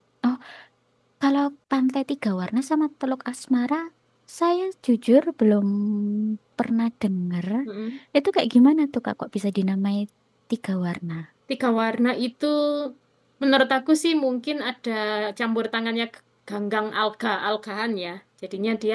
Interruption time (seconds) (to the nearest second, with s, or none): none